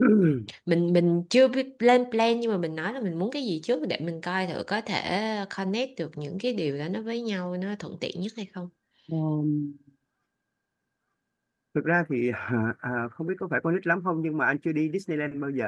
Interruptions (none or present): none